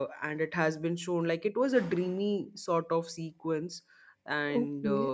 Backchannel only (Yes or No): No